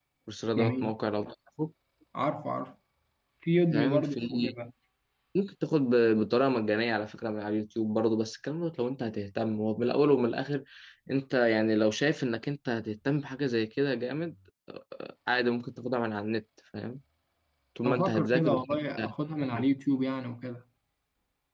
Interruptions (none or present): present